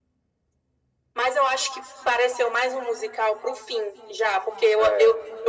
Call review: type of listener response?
listening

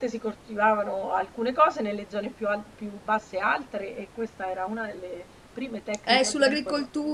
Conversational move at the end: taking over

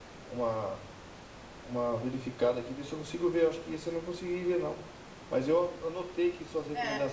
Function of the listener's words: listening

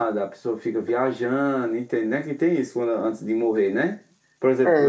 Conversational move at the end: taking over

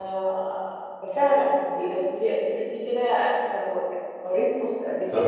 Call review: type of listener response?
taking over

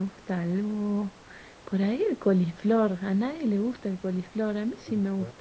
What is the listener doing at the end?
listening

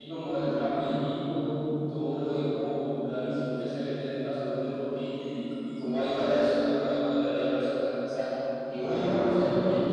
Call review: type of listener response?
listening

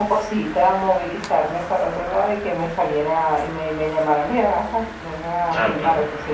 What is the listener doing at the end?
listening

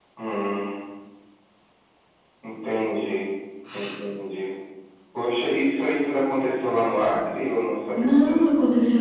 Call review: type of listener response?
taking over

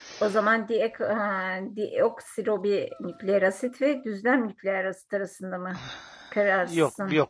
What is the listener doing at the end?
taking over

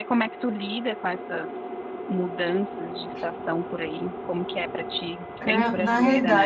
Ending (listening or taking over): taking over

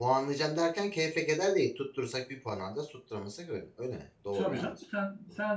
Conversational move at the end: taking over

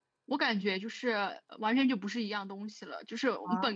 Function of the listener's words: listening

